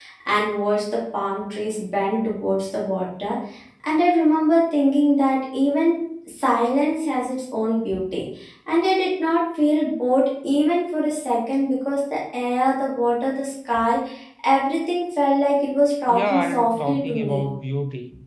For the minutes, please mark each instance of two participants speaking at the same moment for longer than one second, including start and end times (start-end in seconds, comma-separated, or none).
16.1-17.4